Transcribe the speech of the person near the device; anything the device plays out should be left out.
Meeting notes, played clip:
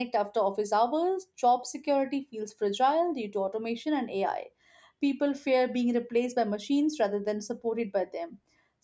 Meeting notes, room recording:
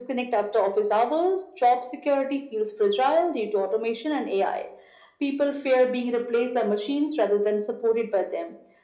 none

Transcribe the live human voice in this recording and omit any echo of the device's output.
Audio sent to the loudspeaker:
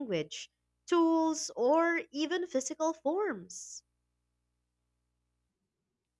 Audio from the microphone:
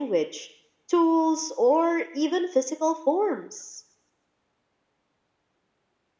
none

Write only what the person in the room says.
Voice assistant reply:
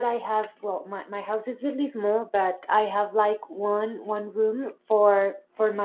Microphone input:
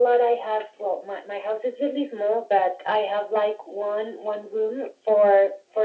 none

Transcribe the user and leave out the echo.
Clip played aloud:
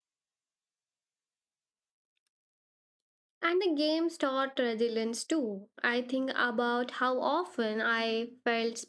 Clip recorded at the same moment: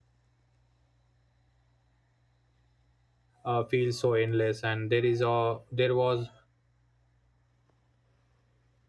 uh, feel so endless and there is a there was

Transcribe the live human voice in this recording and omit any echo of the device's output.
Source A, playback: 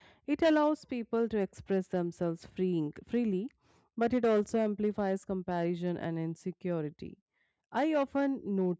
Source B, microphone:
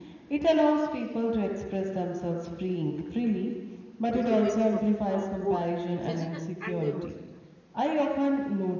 which affects the bo- both the physical and the emotional health.

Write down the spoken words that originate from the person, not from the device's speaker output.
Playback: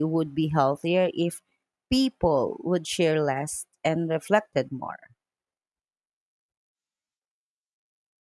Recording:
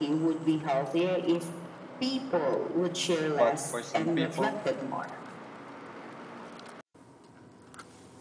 But for some people,

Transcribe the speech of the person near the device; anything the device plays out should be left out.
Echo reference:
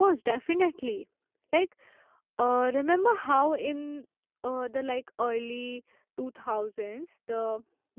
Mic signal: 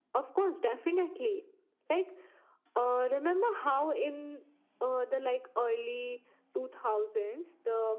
none

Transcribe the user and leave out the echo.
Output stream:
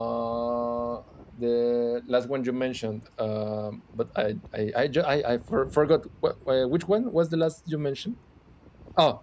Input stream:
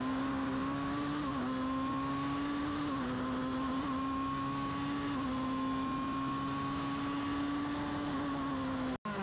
none

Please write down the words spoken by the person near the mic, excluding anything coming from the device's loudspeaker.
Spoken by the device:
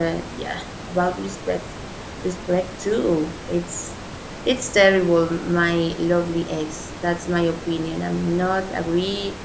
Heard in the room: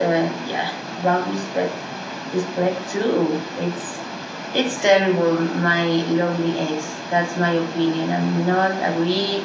none

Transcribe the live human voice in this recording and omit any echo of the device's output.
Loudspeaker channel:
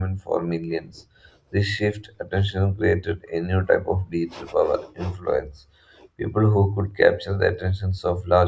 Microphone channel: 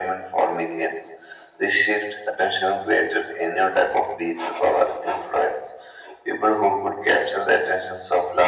none

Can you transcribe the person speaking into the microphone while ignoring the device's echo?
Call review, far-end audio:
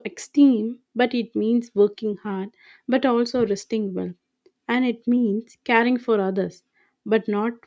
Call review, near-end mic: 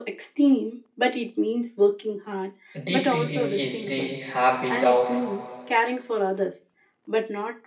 Deep thinking is the habit of

